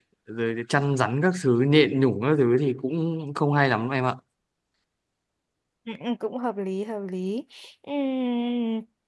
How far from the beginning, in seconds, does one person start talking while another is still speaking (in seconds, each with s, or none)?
none